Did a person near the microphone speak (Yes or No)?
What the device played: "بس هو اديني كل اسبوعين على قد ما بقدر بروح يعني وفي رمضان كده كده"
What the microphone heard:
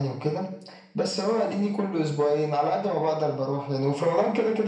No